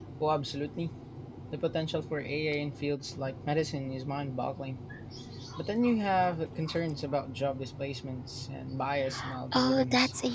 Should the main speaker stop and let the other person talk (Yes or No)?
Yes